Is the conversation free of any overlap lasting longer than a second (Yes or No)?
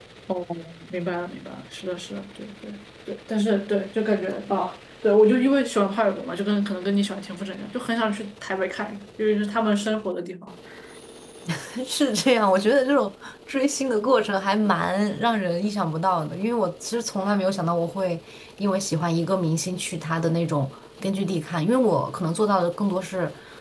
Yes